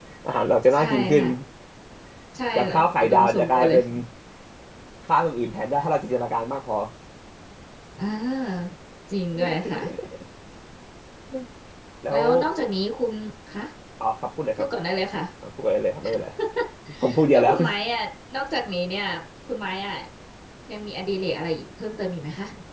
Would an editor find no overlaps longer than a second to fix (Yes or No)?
No